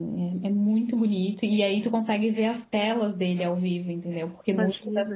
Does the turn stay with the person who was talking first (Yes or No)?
Yes